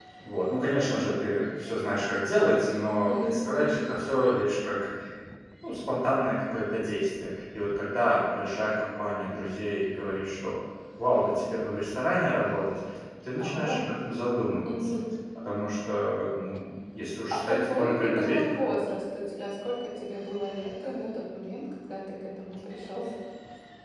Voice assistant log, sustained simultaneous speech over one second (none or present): present